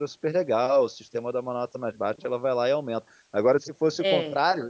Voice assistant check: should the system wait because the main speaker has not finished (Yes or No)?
Yes